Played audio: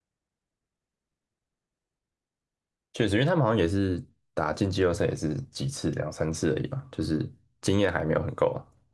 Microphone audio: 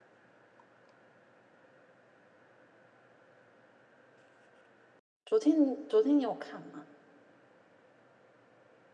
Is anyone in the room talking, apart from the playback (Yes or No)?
Yes